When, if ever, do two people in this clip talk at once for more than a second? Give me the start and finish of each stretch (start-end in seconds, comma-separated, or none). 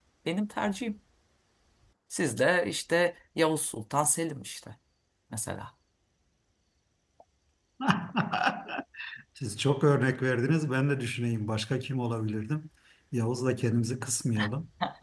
none